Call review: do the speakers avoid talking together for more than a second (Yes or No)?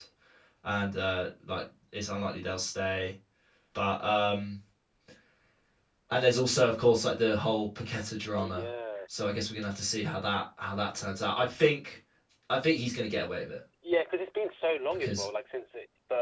Yes